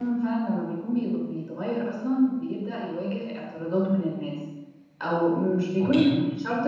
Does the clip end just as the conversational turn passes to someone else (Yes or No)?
No